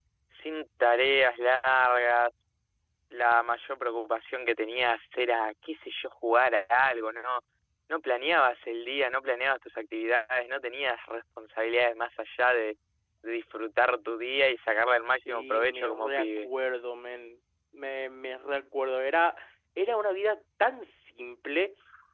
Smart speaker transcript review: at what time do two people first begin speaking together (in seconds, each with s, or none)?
15.1 s